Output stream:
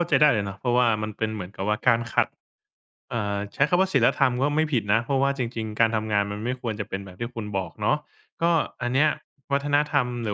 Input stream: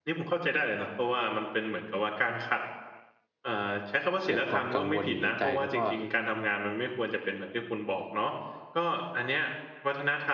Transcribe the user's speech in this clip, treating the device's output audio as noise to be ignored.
เกิดความกังวลอยู่ในใจ แล้วก็

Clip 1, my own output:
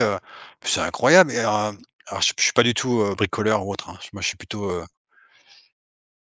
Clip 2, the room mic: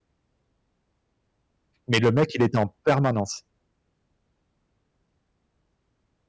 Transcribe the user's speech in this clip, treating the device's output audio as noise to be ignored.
Mais le mec il était en permanence

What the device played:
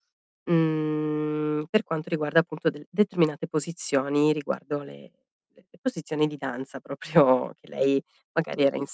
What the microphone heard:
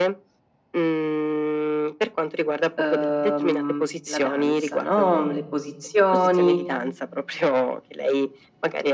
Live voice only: uhm, la danza, no, le posizioni,

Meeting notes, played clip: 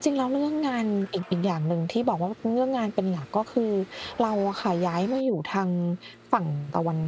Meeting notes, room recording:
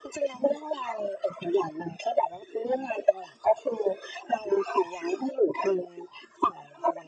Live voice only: none

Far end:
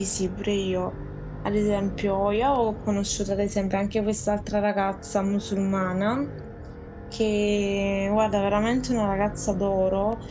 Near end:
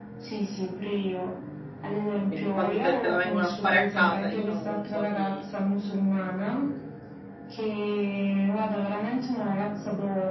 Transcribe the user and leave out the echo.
E quindi quando te te la vengono a fare a casa diciamo che un po' ti

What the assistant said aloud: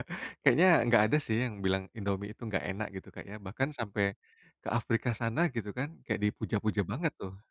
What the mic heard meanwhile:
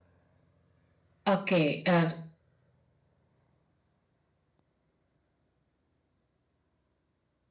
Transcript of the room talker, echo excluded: Oke, eee,

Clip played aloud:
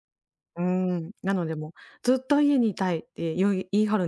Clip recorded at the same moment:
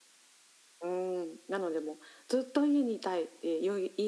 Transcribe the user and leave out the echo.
none

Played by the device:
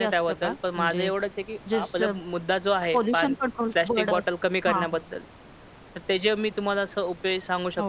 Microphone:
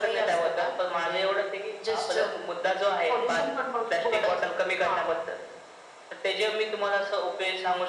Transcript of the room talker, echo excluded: none

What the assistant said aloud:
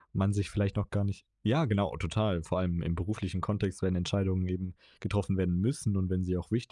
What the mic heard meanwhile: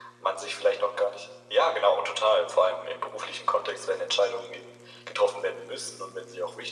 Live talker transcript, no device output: none

